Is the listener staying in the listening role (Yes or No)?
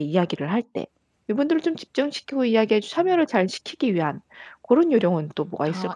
No